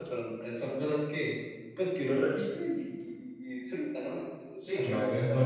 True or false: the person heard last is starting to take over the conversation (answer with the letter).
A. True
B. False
A